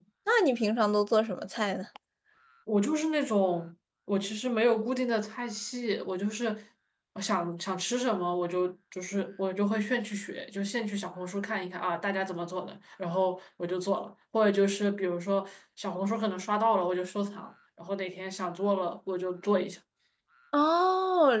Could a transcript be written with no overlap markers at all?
Yes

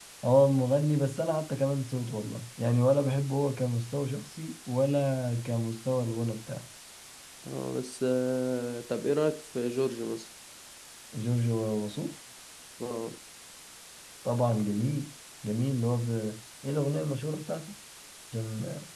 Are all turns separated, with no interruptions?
Yes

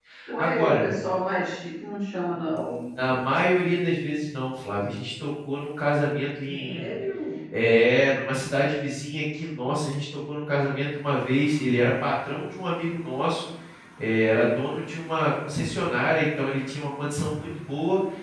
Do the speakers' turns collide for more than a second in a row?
No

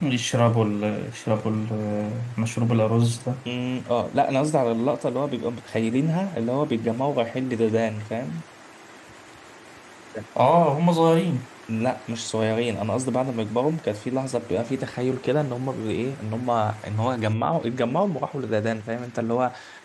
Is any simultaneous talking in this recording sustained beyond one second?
No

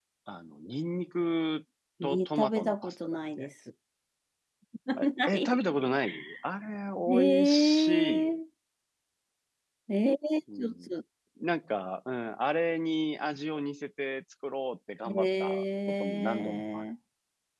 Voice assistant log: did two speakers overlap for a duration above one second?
Yes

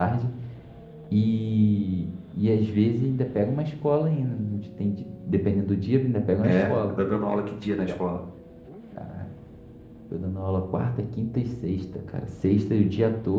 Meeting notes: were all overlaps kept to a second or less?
Yes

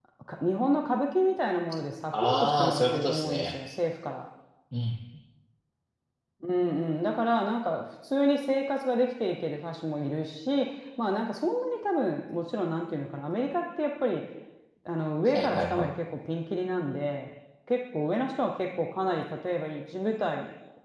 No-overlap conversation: No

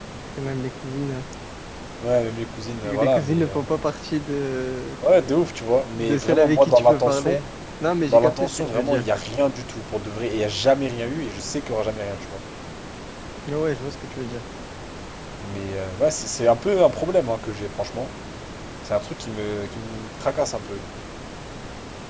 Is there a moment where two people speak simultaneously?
Yes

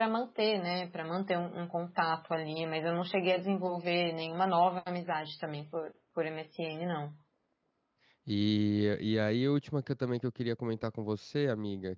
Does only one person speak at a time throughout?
Yes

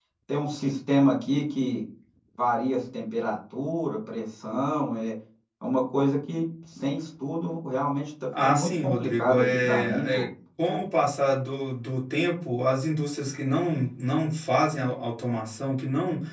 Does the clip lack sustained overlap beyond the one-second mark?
No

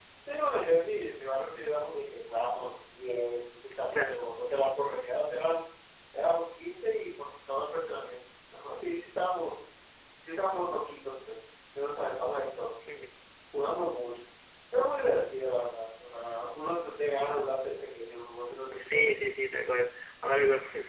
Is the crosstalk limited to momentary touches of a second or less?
Yes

